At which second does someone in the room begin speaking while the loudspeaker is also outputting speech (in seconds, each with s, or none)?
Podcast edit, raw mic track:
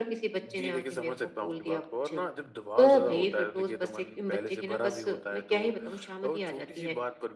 0.4 s